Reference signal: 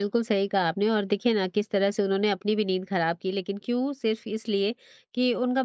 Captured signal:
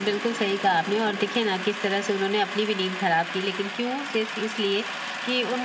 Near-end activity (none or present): none